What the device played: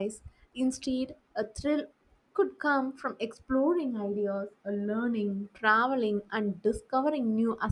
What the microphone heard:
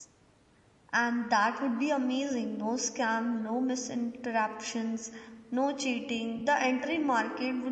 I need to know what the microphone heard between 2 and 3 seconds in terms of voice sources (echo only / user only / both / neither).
user only